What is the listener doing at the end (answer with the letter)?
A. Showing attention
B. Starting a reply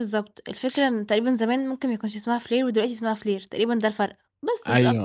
B